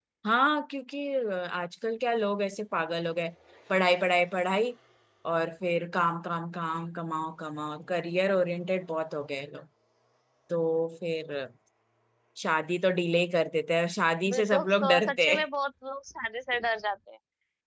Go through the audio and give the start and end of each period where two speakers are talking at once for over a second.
14.2-15.5

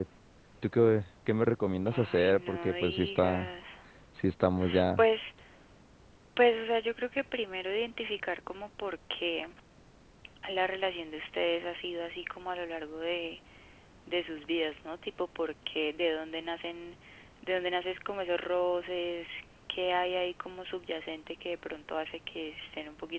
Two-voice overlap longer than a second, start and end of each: 1.9-3.5

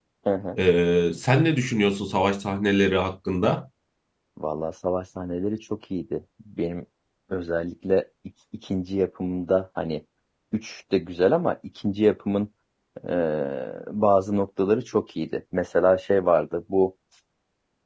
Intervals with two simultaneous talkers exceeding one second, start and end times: none

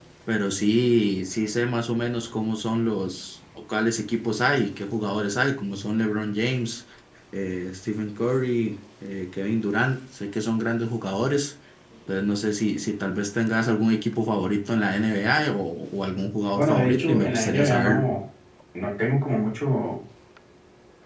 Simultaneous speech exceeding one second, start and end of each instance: 16.6-18.0

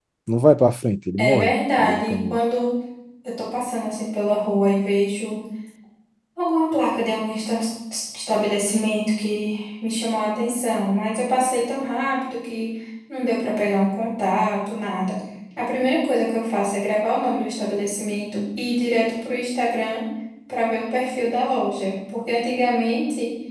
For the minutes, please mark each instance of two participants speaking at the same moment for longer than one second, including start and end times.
1.2-2.4

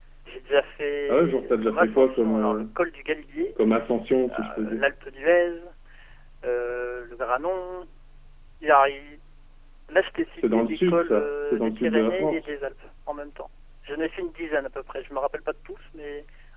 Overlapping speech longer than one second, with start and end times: 1.1-2.6, 10.4-12.5

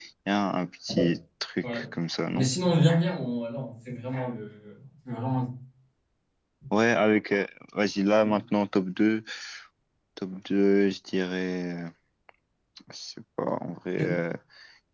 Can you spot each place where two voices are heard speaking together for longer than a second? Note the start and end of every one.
none

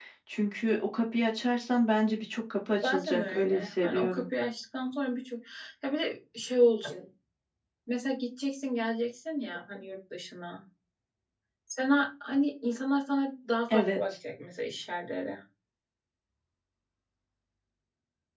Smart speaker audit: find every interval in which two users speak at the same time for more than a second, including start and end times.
2.8-4.2

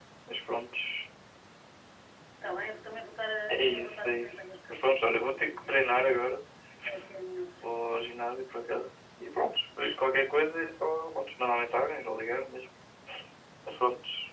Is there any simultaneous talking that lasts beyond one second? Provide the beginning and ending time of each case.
3.5-6.2

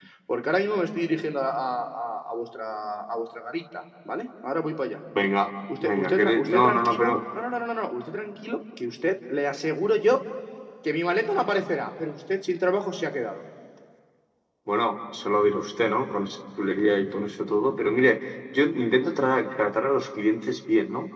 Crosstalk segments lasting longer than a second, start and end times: 5.8-7.1

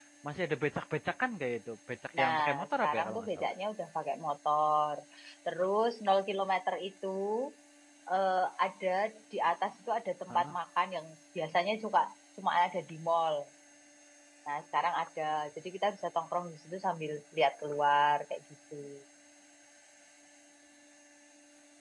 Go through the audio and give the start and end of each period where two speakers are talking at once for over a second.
2.2-3.5

